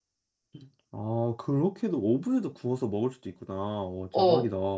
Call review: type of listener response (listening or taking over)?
taking over